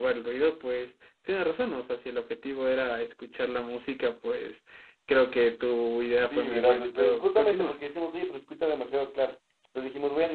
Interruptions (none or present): present